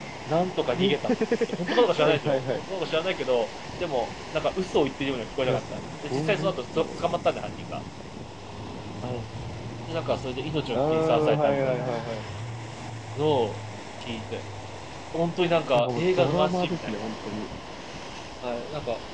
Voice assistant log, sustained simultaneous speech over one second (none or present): present